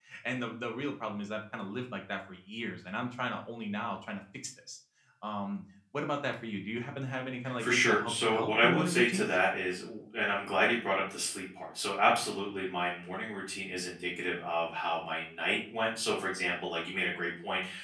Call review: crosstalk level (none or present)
present